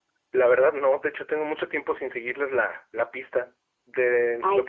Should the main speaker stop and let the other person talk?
No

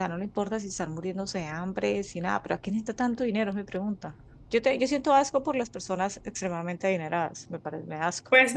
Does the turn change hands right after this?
Yes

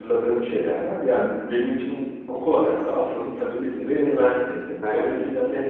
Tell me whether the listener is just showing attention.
Yes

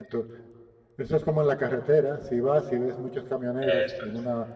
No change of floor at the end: Yes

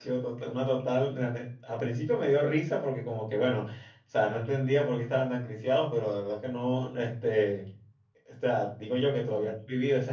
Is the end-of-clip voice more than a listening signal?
No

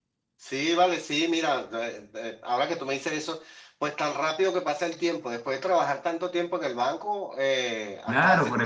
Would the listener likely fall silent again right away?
No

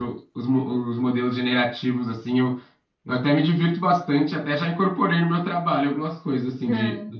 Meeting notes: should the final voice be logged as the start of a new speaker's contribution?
No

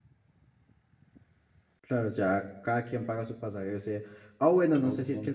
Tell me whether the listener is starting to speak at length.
No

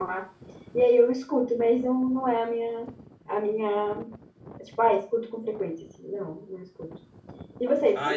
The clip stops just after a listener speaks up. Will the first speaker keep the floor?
No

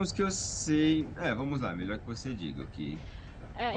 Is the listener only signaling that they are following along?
No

